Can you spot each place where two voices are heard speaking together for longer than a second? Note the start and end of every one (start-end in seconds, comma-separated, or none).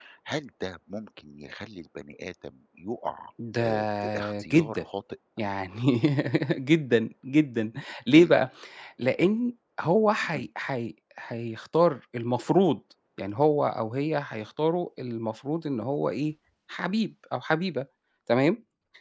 3.6-4.8